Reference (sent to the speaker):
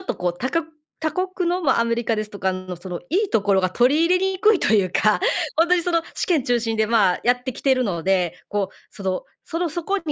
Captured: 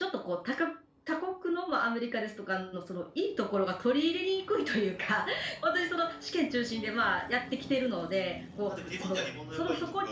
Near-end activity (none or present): present